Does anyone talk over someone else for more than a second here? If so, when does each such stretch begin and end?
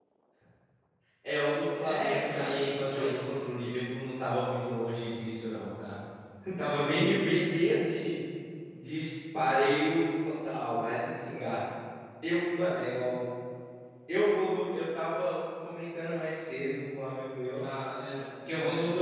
1.8-3.2

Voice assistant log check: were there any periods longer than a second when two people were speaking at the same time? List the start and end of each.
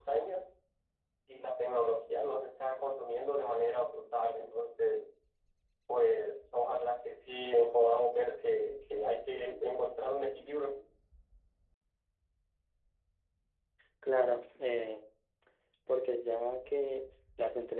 none

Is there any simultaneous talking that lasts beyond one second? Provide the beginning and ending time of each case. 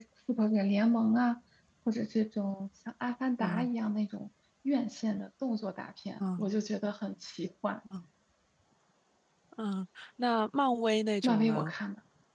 none

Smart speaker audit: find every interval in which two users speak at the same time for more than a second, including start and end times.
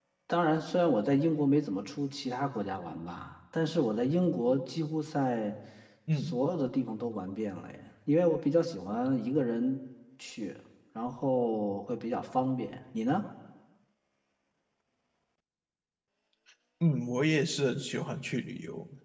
none

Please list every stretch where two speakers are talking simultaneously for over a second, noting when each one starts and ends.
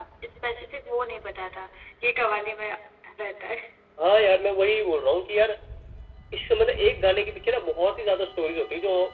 none

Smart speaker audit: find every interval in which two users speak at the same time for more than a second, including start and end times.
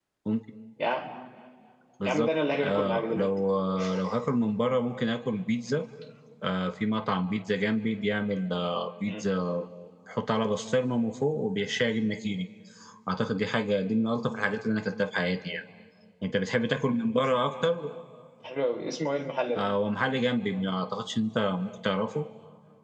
2.0-3.3

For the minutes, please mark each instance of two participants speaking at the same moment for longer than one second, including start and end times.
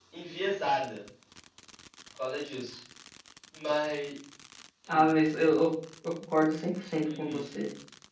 none

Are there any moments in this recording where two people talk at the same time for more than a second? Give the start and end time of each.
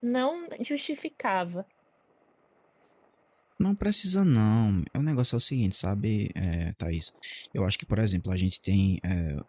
none

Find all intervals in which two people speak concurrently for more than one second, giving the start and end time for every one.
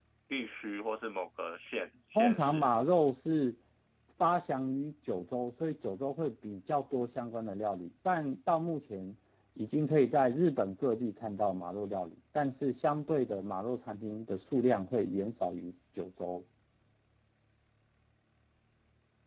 none

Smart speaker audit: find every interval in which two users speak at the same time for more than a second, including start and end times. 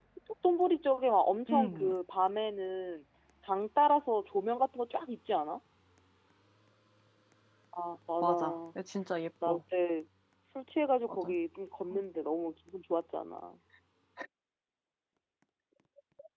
none

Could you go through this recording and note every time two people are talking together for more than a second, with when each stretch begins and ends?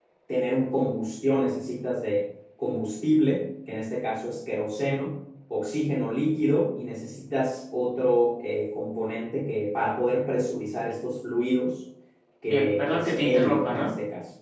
12.5-13.9

